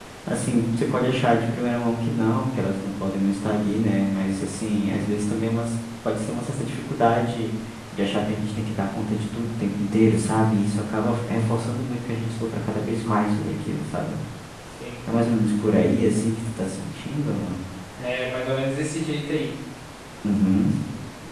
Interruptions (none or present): none